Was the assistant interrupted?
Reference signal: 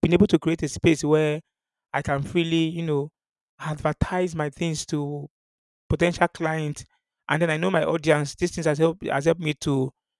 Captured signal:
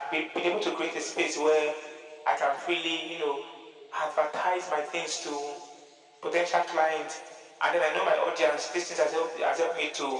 No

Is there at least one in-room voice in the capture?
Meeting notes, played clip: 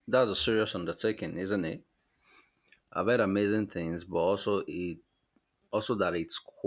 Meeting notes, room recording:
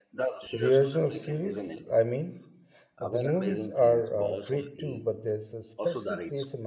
Yes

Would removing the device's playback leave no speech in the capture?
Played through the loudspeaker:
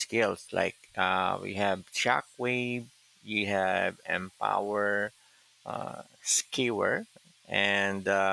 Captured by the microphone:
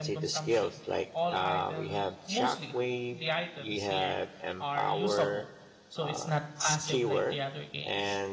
No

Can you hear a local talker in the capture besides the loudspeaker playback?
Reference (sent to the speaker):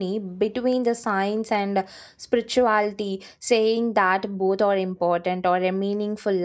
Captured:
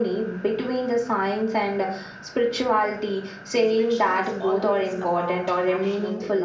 Yes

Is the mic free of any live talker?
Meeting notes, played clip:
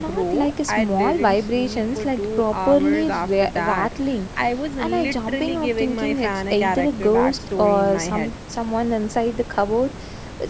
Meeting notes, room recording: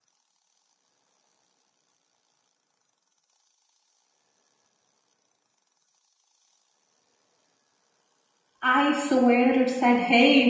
No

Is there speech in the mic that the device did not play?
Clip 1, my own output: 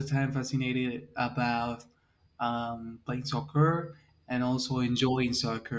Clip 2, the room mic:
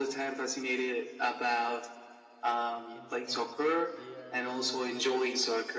Yes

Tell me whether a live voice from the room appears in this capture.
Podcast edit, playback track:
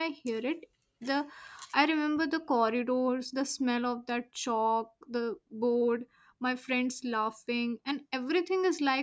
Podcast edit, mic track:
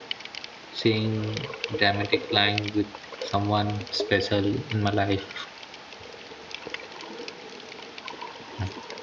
Yes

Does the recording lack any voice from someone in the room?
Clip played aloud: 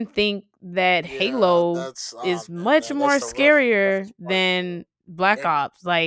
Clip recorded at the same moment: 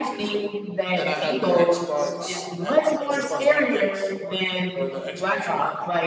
No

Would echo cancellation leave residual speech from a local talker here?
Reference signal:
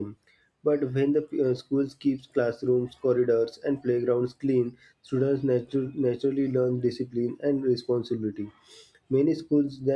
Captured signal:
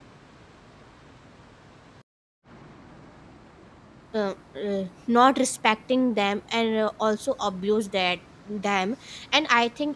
Yes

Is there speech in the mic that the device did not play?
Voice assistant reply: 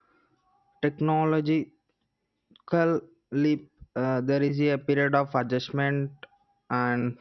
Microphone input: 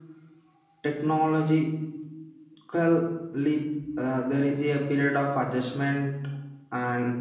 No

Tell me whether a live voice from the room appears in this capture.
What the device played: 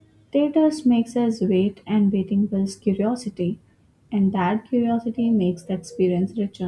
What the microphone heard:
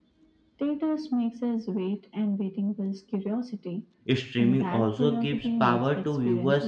Yes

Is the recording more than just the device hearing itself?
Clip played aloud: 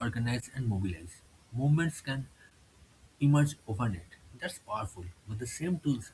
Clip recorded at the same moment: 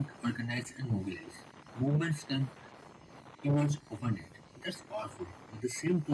No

